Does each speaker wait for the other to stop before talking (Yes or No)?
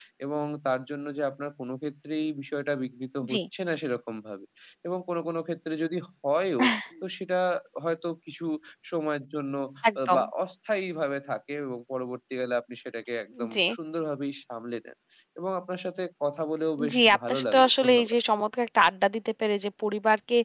No